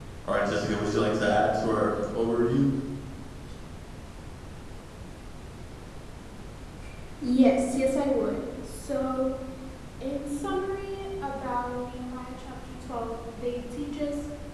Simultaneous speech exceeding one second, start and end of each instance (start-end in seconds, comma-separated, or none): none